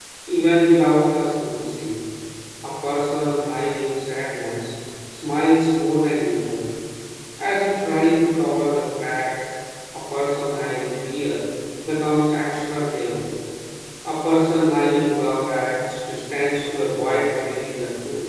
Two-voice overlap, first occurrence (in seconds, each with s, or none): none